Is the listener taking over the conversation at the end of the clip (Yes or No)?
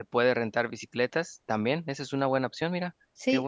Yes